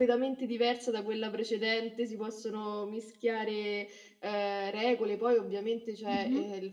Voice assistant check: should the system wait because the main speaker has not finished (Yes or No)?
Yes